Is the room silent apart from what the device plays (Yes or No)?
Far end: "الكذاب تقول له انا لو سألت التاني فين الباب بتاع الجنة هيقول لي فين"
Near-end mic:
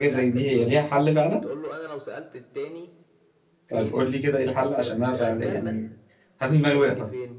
No